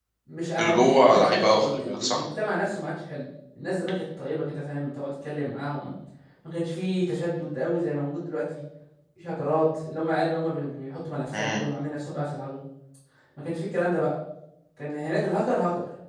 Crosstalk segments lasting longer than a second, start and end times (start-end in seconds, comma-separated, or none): 0.6-2.2